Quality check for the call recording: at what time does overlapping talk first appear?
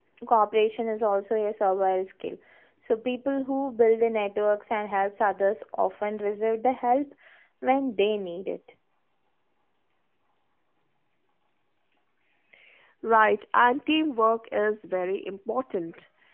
none

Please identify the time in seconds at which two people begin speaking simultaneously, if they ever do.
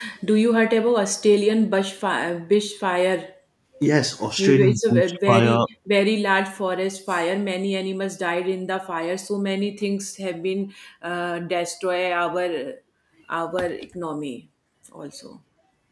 4 s

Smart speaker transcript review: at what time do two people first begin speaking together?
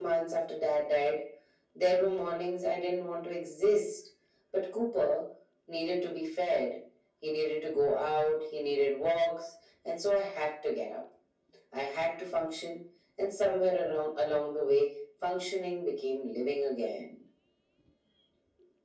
none

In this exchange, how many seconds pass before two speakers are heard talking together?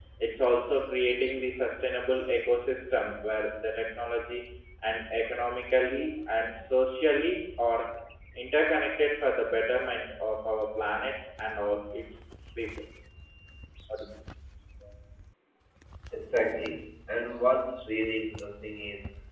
none

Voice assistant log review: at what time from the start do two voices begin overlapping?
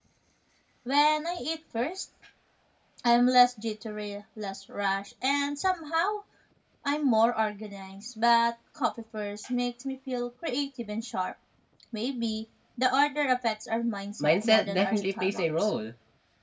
14 s

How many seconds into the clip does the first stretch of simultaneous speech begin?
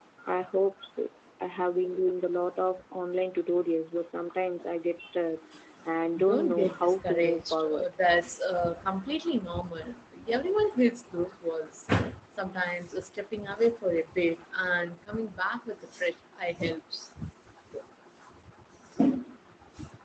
6 s

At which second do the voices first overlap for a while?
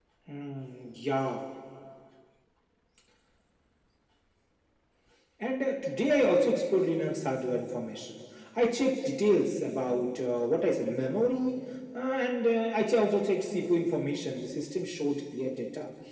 none

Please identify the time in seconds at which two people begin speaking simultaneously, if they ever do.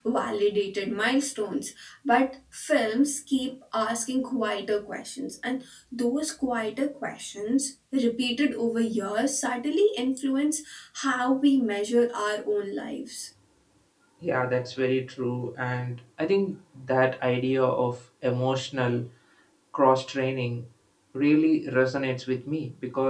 none

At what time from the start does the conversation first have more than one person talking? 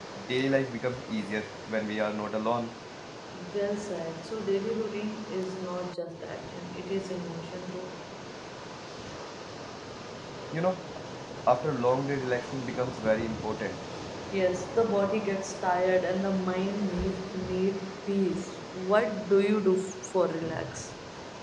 none

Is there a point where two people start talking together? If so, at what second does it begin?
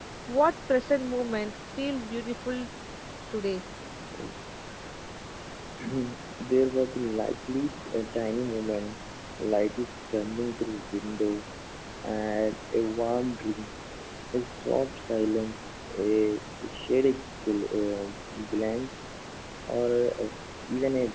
none

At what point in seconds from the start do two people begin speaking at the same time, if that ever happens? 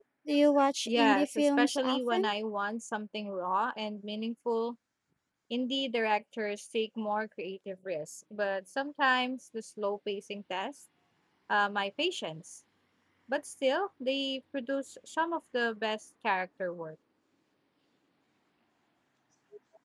1 s

